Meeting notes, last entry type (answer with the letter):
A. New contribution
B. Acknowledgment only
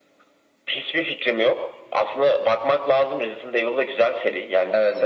B